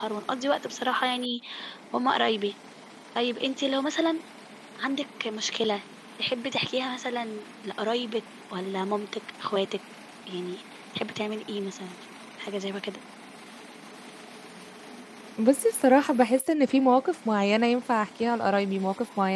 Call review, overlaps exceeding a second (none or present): none